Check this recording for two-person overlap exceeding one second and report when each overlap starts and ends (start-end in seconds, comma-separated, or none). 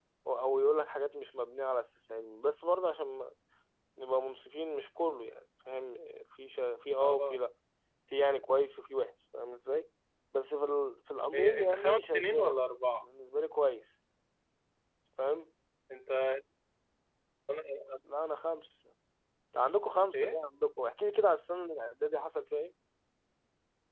11.3-12.6